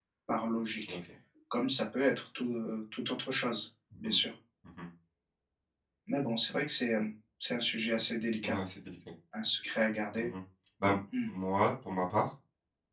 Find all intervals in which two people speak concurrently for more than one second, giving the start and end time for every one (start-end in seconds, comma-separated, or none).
none